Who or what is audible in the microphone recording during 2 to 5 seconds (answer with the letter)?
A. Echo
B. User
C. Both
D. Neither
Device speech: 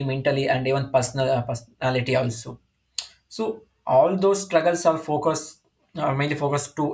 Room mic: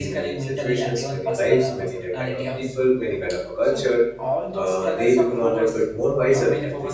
C